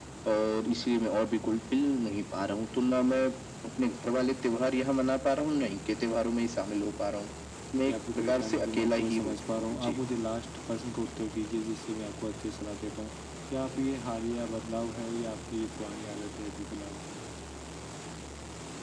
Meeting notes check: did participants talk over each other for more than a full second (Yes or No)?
Yes